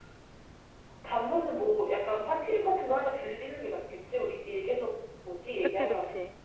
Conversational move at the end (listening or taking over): taking over